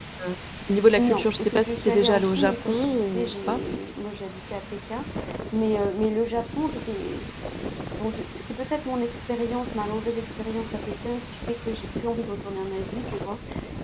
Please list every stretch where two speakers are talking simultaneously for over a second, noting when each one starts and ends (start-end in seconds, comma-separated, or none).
1.0-3.6